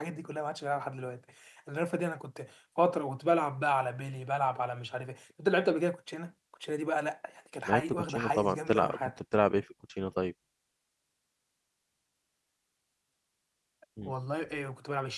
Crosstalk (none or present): present